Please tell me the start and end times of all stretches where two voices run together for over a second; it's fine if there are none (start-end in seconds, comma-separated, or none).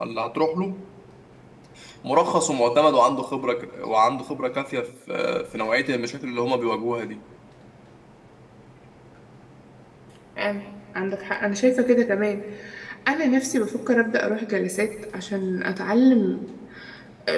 none